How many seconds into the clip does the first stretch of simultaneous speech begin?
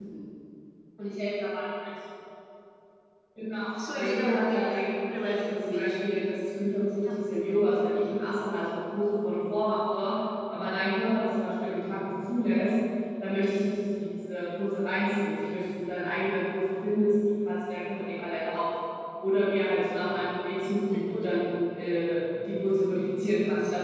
3.9 s

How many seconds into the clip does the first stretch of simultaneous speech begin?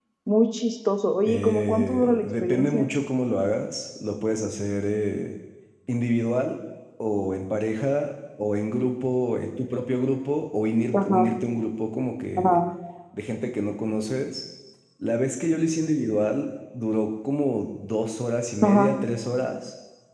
1.2 s

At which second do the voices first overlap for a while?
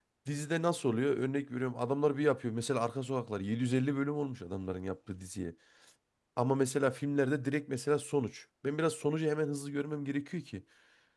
none

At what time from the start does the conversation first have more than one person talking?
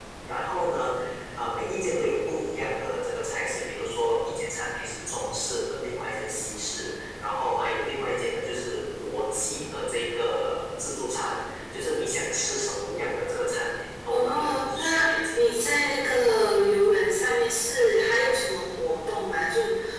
14.1 s

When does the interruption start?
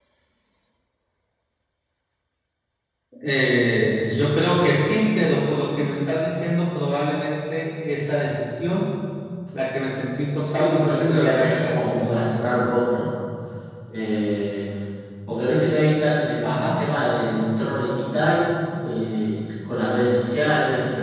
10.6 s

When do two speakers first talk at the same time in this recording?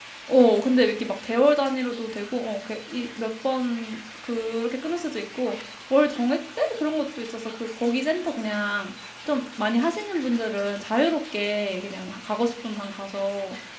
none

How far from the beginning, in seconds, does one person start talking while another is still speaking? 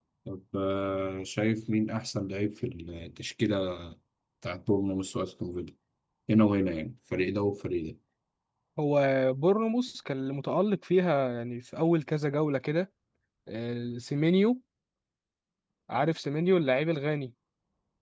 none

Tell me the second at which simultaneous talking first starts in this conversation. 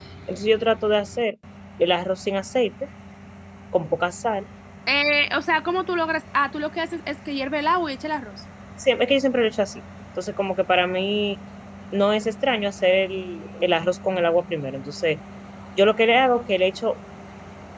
none

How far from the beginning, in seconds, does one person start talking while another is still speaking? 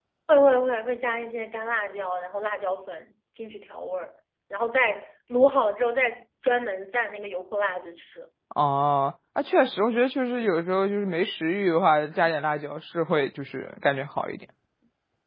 none

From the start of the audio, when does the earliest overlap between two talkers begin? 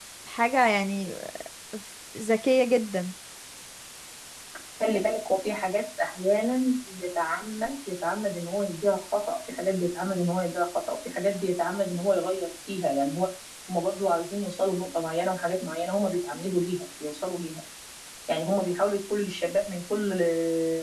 none

